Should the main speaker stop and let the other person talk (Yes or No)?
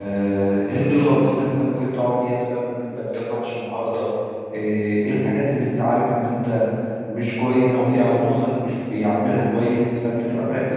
No